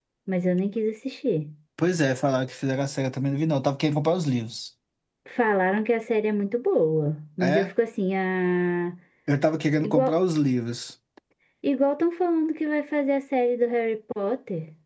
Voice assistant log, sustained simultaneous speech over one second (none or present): none